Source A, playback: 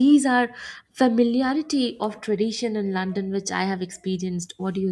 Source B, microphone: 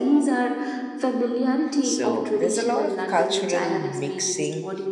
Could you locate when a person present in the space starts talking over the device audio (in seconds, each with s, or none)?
1.8 s